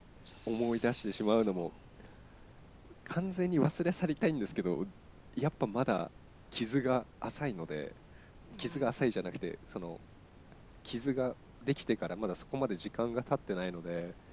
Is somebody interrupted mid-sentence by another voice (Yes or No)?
Yes